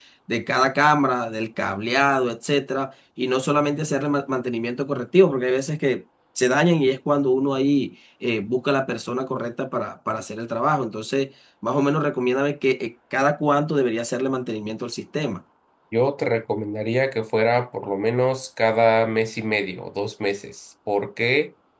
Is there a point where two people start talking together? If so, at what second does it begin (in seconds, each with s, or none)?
none